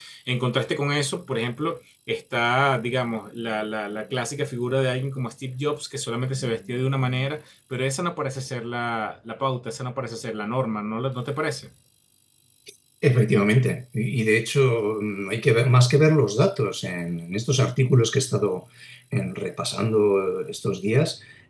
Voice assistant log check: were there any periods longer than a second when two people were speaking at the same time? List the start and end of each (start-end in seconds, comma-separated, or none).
none